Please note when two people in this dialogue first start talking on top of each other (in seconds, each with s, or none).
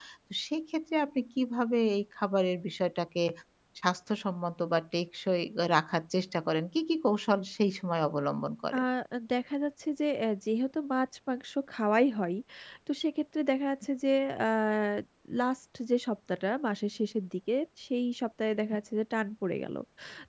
none